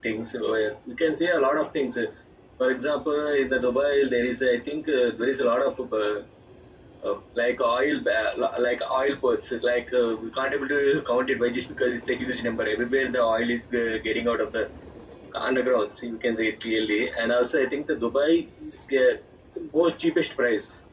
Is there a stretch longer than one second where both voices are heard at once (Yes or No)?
No